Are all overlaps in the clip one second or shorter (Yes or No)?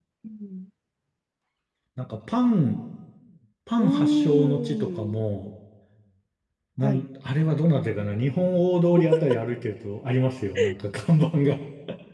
No